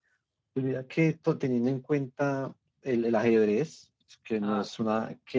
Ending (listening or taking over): listening